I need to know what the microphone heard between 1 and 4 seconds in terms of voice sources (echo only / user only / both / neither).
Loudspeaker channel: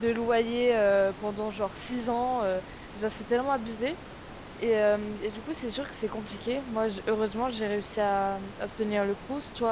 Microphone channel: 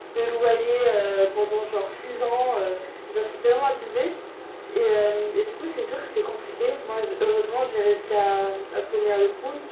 echo only